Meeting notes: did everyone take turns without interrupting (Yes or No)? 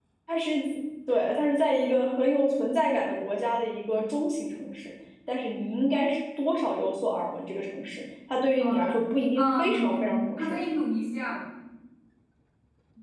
No